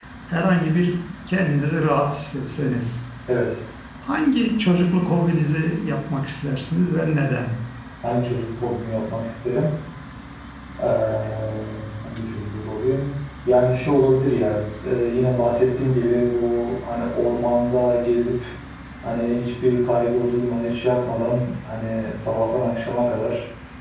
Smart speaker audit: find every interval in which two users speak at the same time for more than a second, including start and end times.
none

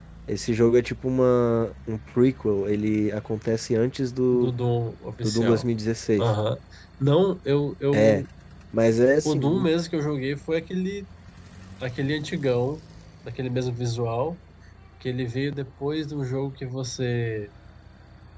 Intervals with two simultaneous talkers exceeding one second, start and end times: none

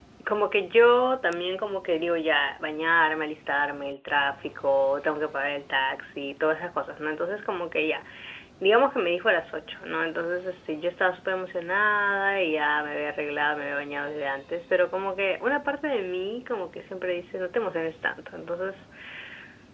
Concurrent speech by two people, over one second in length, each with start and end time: none

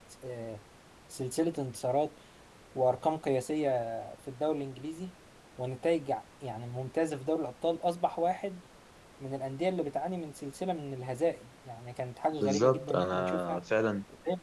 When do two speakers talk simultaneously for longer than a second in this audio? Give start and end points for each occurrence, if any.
12.4-13.6

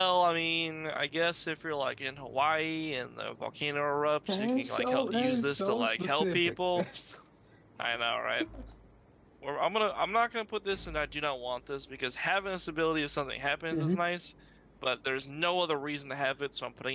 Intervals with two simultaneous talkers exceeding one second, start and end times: 4.3-6.8

